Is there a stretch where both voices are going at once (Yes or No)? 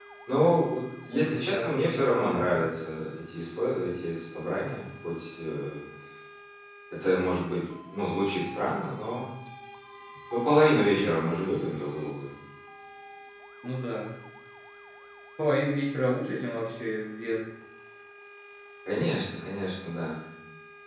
Yes